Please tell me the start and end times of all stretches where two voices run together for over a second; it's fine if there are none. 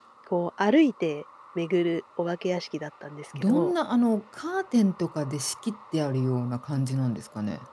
none

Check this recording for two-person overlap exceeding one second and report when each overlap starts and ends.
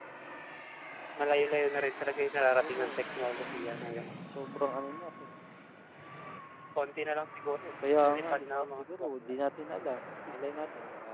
8.0-9.4

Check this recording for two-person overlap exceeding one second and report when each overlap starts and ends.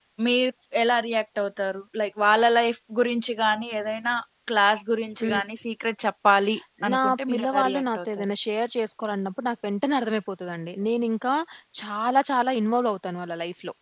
6.9-8.3

